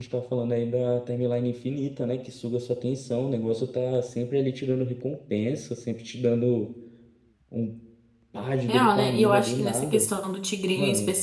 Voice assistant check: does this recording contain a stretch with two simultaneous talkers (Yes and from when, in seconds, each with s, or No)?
Yes, from 8.7 s